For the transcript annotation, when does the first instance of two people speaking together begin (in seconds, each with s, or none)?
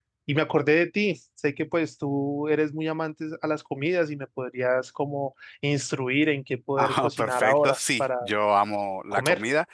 6.8 s